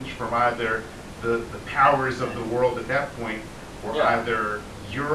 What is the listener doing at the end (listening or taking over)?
listening